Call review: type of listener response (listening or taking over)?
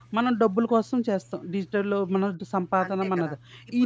taking over